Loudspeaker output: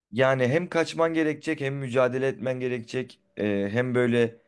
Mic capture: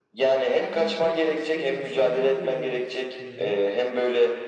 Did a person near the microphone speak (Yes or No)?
Yes